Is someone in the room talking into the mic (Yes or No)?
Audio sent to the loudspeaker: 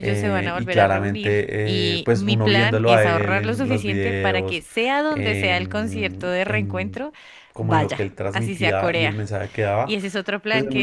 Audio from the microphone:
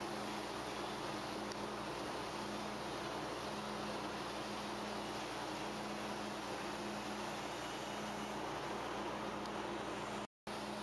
No